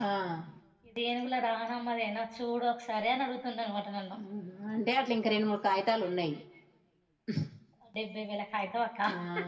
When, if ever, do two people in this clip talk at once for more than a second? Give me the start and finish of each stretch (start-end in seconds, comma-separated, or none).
none